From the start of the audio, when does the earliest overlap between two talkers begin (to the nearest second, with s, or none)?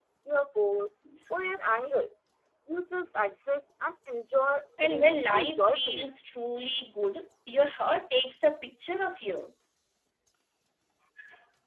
5 s